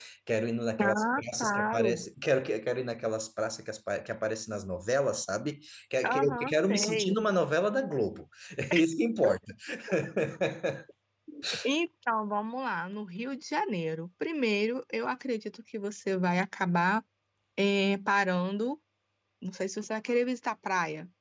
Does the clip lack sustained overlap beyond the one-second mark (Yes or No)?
No